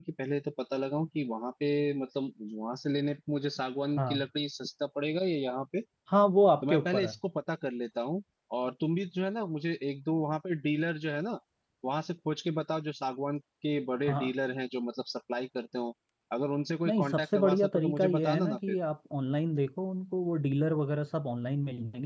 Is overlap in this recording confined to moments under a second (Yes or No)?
No